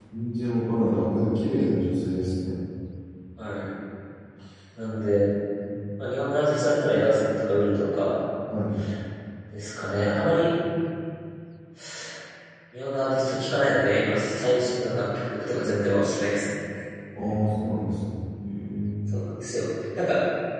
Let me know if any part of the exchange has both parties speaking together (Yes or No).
No